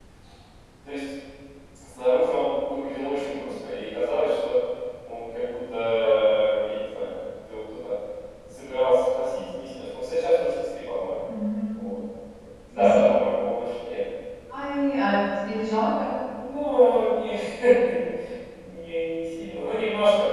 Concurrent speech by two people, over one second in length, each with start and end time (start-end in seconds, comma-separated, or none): none